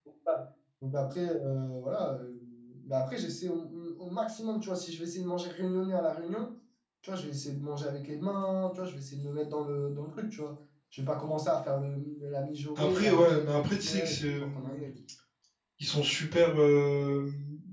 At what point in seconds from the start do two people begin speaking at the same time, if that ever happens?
12.8 s

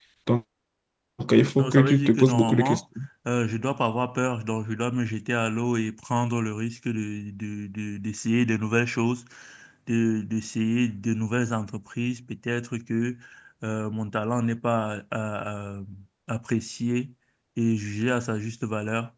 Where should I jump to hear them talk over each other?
1.6 s

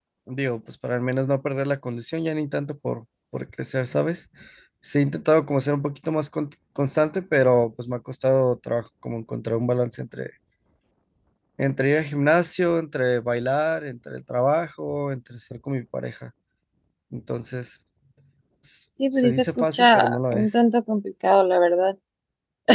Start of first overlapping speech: 19.1 s

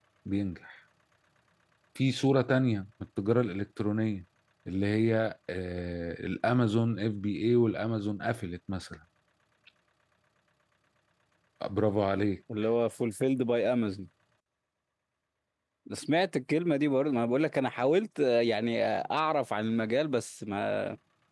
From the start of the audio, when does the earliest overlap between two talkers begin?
none

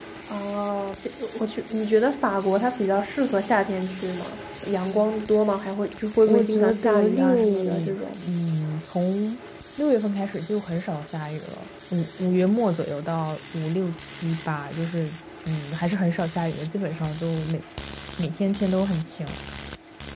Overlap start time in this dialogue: 6.2 s

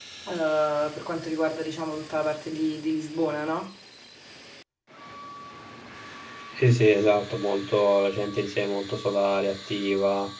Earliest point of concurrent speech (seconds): none

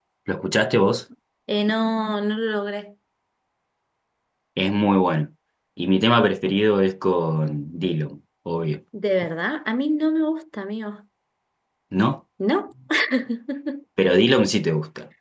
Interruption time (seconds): none

